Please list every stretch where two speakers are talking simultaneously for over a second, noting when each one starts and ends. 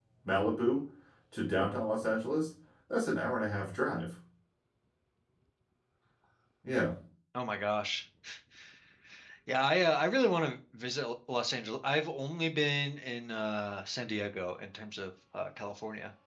none

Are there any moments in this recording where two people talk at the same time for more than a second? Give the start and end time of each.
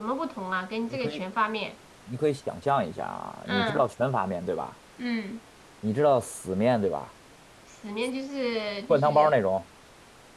none

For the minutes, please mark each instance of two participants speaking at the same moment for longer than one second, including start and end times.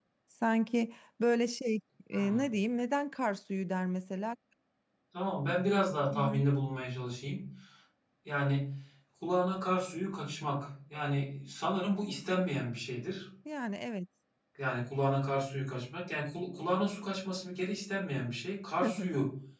none

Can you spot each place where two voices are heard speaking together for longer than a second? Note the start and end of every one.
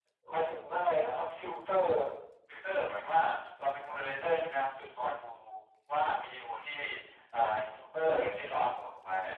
none

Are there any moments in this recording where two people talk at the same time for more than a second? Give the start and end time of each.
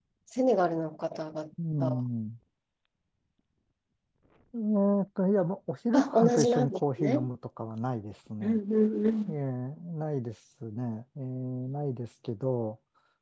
5.9-7.2

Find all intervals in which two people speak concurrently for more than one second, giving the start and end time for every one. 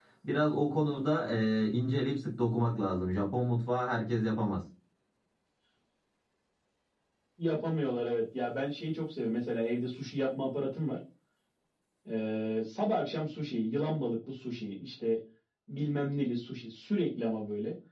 none

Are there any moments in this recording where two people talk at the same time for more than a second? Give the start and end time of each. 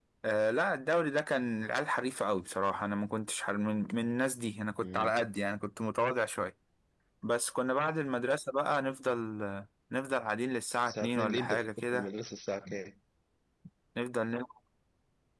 10.9-12.1

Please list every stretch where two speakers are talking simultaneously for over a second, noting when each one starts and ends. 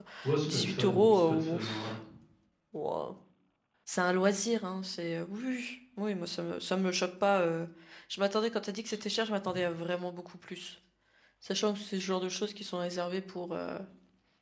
0.5-2.0

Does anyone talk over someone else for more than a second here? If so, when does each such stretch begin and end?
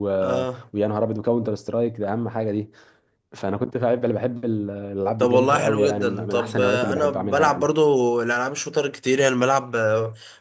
5.2-7.7

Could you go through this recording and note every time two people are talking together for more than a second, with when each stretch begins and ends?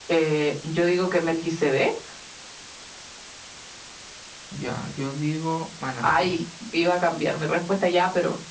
none

